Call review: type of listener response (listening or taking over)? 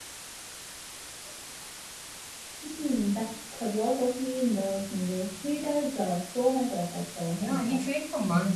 taking over